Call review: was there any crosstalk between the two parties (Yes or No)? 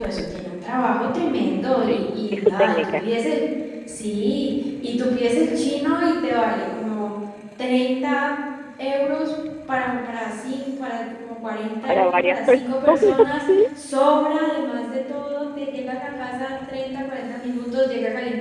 Yes